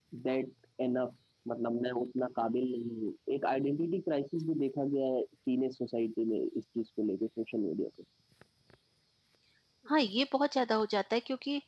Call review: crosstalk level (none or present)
none